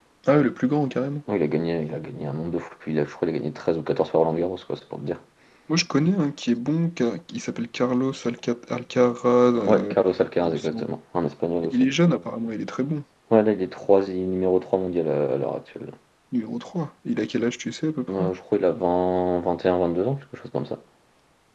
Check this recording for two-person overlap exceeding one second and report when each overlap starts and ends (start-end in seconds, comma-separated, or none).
none